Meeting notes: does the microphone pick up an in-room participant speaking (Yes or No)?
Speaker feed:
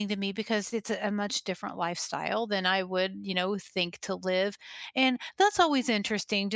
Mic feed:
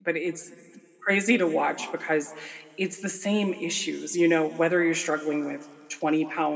Yes